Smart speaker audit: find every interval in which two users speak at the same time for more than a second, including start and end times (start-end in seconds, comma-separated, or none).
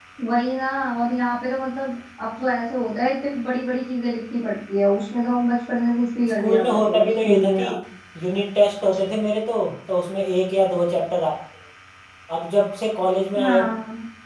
6.4-7.6